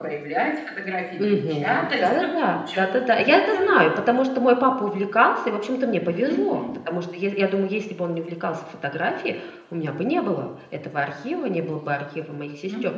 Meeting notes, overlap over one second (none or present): present